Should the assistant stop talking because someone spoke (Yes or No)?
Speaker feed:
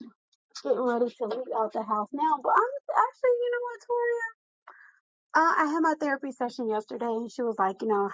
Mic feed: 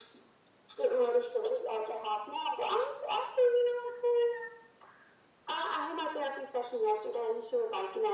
No